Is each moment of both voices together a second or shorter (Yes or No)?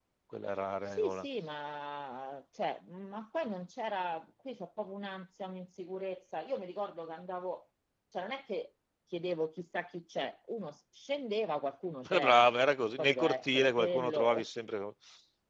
No